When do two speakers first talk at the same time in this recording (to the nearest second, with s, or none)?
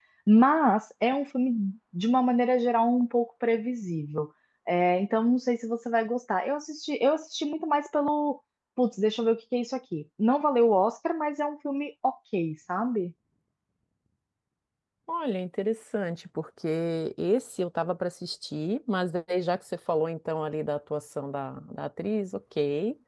none